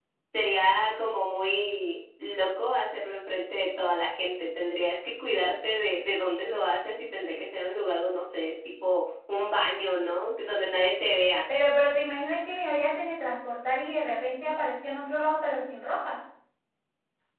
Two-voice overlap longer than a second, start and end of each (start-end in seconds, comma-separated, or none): none